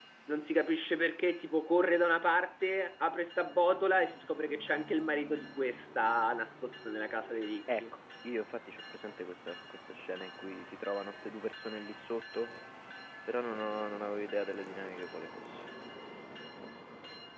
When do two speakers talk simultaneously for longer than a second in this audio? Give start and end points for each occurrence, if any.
none

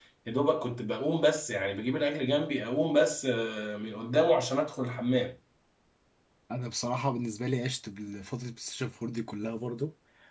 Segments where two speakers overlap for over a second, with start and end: none

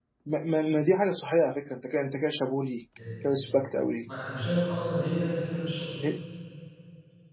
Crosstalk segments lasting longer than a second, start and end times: none

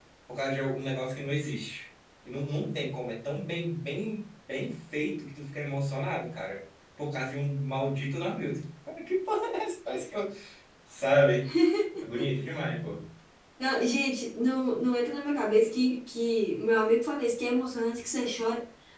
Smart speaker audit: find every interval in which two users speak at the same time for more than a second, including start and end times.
none

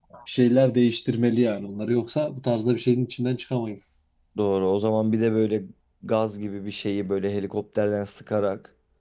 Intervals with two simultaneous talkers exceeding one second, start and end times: none

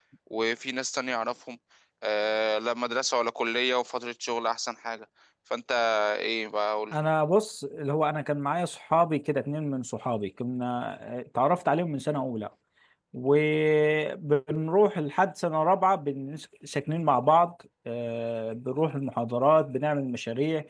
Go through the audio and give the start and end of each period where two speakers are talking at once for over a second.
none

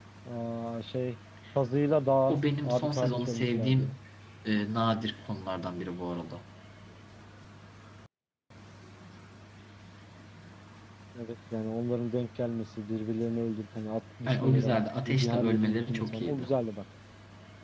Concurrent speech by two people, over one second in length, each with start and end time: 2.3-4.0, 14.3-16.5

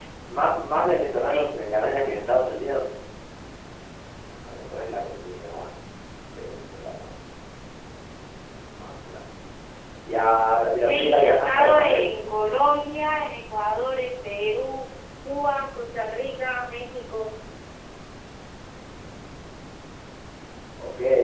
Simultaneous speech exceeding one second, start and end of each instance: 10.7-12.1

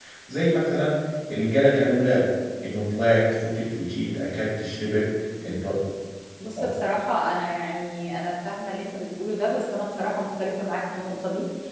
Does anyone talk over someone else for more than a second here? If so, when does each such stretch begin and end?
none

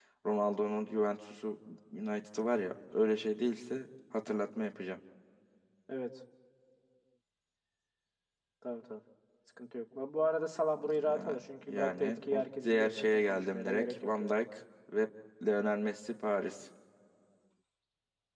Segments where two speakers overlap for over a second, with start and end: 11.0-14.3

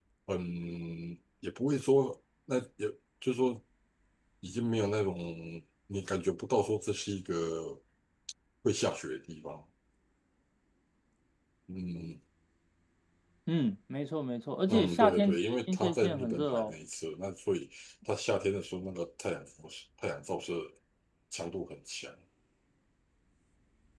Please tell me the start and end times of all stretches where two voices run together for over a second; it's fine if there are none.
14.7-16.7

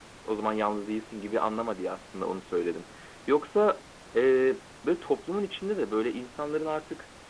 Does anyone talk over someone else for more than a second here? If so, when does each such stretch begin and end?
none

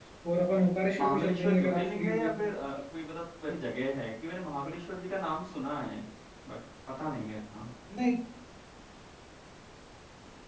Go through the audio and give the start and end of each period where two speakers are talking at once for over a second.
1.0-2.5

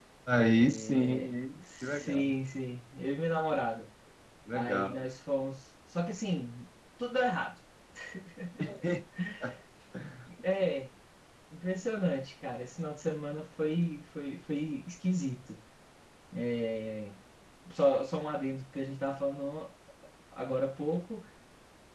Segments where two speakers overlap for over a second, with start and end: 0.5-2.4

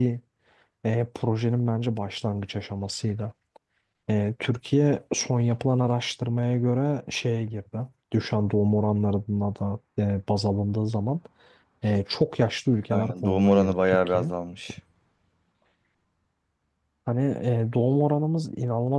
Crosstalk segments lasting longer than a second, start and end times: 12.9-14.3

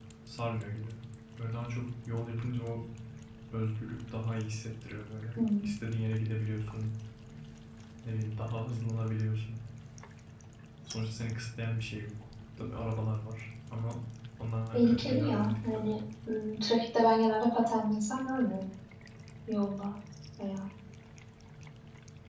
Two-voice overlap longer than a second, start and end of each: 14.7-15.9

